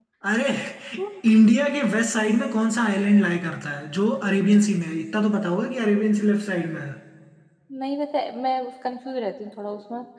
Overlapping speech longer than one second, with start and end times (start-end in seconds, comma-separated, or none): none